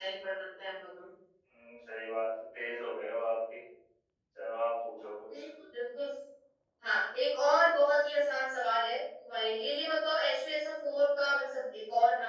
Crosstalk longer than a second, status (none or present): none